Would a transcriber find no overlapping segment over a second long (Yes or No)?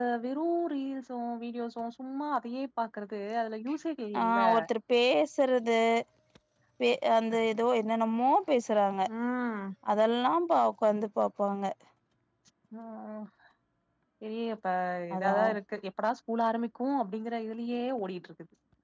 Yes